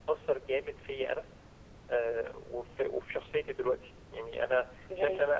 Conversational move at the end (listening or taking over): taking over